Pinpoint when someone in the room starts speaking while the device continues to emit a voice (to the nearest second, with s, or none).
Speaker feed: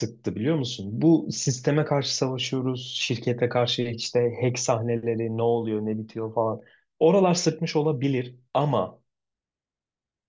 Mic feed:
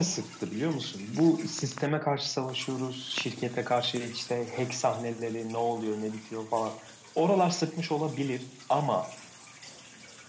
none